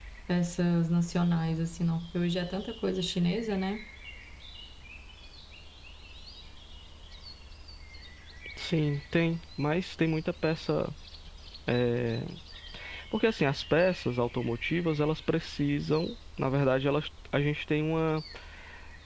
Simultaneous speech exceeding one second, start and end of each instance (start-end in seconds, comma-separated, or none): none